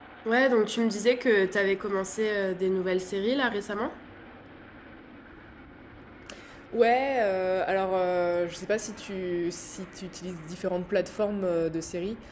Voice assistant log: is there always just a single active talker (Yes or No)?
Yes